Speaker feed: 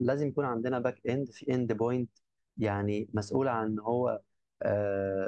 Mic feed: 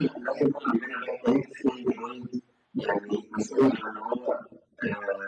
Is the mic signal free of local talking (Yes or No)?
Yes